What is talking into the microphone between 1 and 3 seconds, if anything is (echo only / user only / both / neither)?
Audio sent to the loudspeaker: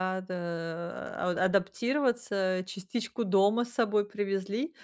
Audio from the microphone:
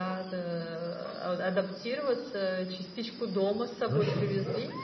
echo only